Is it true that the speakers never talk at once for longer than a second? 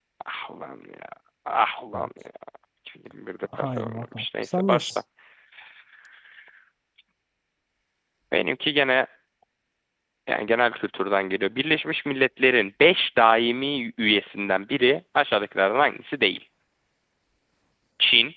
No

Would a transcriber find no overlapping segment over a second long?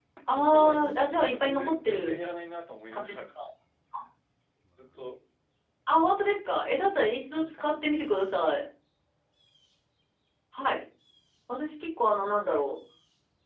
No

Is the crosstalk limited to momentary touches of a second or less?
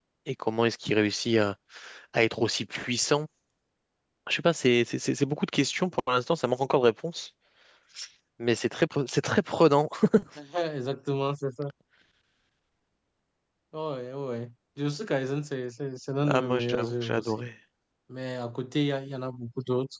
No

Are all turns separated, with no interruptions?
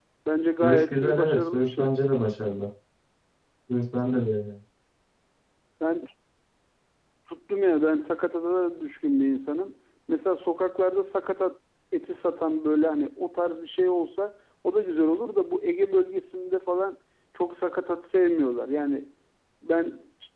No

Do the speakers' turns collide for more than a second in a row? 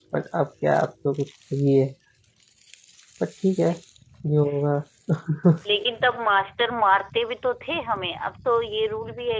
No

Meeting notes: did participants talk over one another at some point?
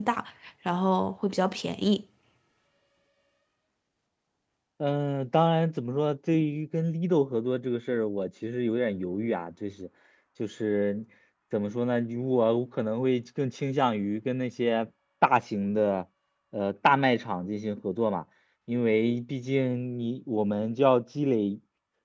No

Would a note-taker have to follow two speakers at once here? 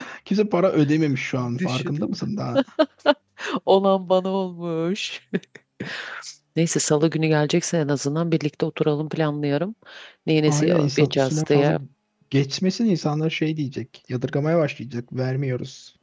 Yes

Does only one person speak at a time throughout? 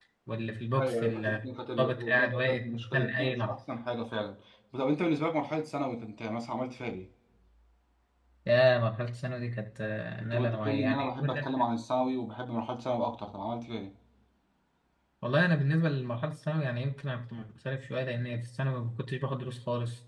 No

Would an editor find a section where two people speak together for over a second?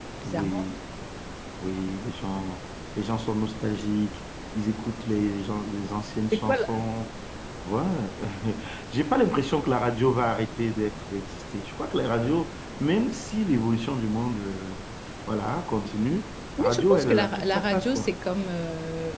Yes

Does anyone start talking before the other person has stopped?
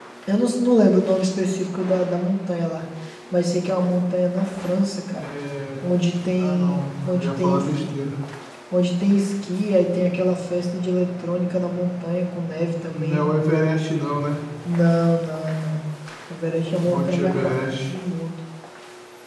Yes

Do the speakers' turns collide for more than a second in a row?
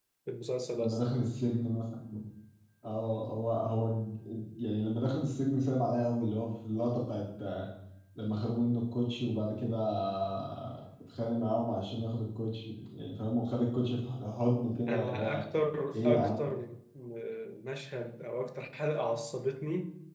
No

